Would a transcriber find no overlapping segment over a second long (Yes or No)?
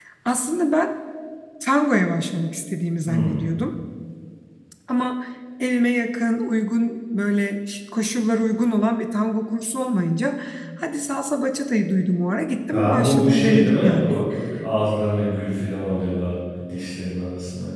No